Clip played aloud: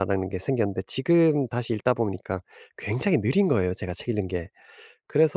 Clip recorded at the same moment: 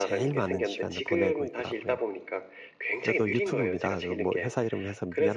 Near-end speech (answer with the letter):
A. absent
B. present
B